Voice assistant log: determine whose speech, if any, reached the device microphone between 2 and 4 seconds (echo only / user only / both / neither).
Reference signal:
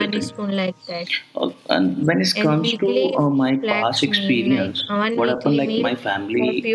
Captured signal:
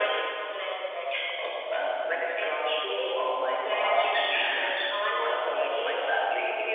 echo only